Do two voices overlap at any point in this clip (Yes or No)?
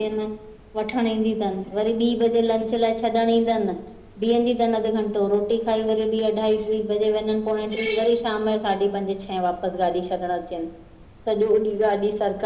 No